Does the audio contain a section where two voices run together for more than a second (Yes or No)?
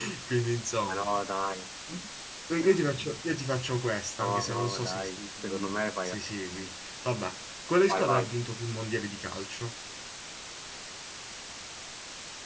Yes